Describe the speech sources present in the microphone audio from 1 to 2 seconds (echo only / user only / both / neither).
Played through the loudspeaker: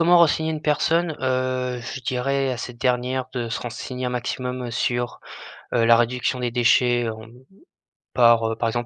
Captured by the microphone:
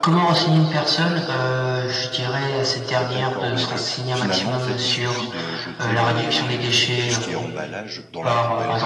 echo only